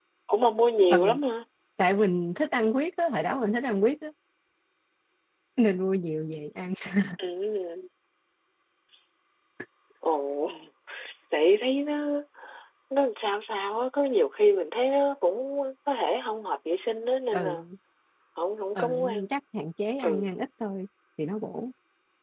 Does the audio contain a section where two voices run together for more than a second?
No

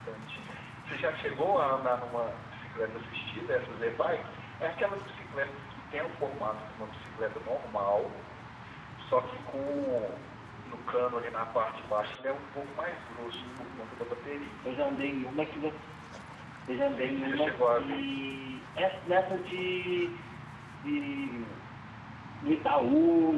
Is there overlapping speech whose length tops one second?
Yes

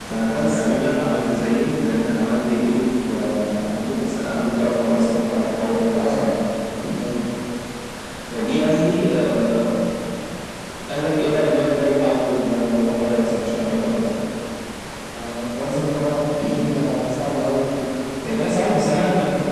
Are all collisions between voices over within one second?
Yes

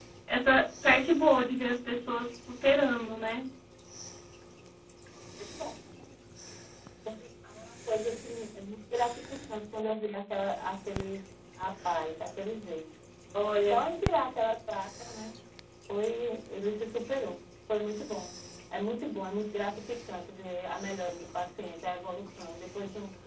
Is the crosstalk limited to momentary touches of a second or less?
Yes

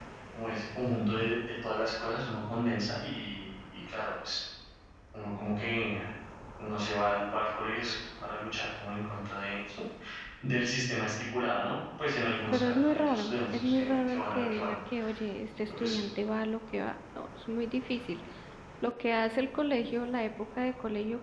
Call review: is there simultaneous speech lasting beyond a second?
Yes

